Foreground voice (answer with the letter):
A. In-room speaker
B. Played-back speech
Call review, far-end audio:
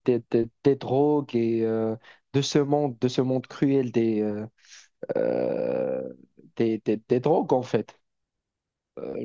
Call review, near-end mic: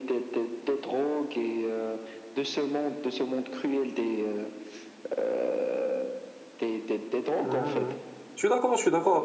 A